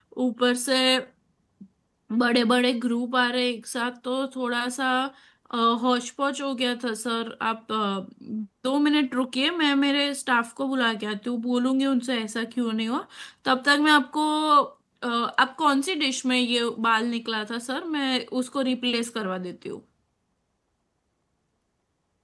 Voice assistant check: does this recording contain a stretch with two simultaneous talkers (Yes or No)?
No